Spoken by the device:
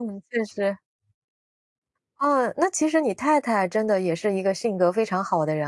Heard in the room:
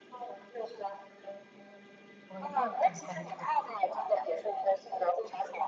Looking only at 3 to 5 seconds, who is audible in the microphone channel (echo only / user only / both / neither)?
both